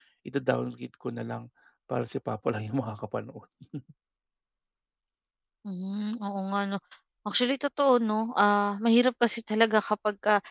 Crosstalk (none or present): none